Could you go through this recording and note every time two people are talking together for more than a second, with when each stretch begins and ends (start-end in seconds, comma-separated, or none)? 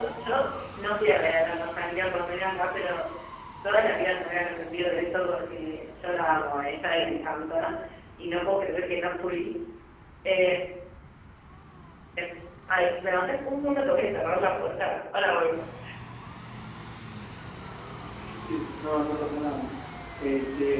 none